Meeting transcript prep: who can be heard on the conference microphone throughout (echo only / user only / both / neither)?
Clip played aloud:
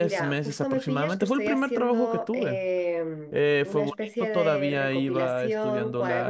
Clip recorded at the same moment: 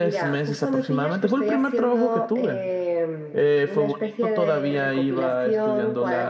echo only